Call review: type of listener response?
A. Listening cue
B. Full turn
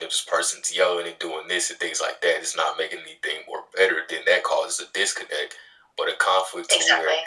A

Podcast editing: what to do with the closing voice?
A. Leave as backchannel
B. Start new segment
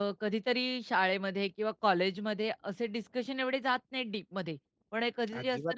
A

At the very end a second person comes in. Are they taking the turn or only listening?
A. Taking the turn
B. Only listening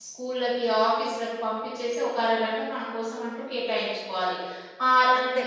B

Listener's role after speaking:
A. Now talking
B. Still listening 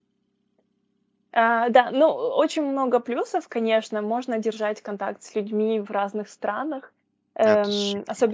B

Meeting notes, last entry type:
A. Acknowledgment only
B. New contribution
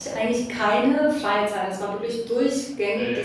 A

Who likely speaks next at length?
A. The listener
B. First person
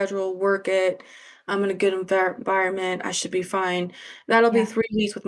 B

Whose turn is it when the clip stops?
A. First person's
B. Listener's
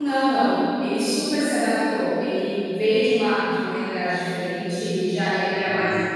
A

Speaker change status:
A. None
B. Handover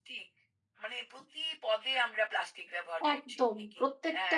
B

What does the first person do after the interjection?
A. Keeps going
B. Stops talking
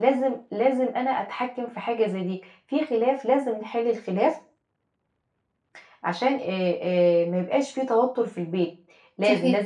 A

